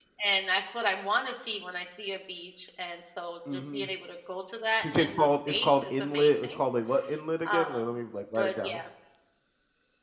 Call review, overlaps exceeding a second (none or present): present